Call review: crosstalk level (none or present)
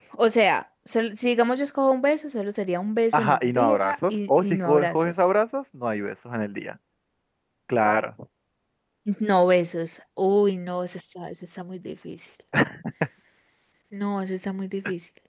present